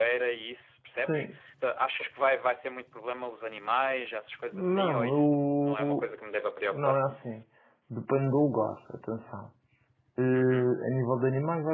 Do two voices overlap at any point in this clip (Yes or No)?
Yes